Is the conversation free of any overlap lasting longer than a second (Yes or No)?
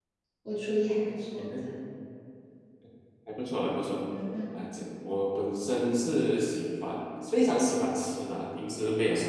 Yes